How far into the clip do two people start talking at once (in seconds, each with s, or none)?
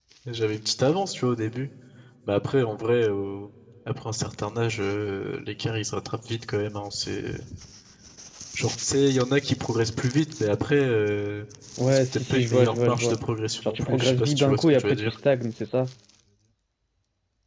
11.9 s